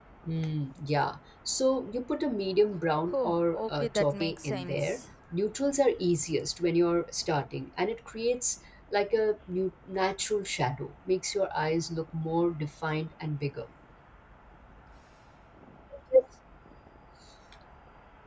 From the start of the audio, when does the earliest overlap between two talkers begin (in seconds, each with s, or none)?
3.0 s